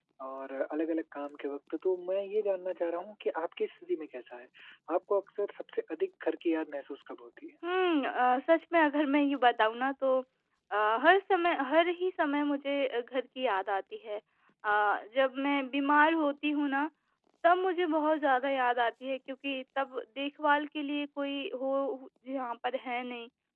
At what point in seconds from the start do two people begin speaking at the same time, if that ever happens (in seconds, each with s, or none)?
none